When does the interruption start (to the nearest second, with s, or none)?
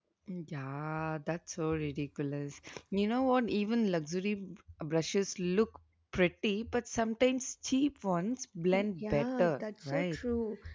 9 s